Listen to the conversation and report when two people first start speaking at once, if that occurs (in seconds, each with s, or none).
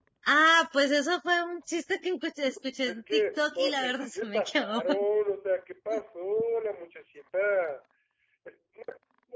2.9 s